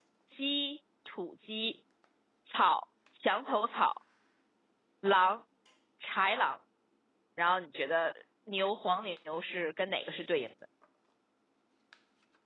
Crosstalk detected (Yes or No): No